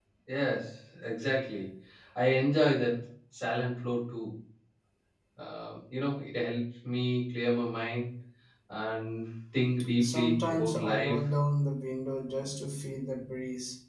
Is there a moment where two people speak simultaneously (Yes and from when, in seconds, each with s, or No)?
Yes, from 10.0 s